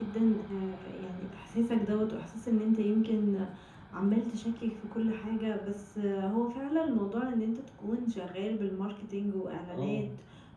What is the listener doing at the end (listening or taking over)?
listening